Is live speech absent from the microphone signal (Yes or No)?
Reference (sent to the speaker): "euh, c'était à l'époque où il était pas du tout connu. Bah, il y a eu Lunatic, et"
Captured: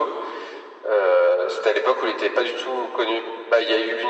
Yes